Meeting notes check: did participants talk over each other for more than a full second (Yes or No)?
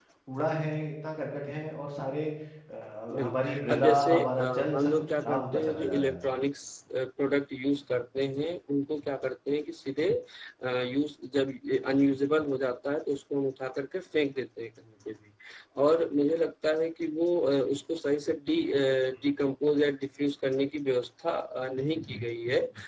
Yes